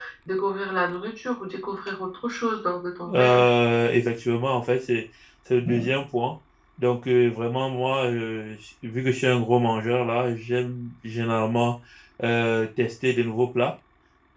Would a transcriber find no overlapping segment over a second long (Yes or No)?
Yes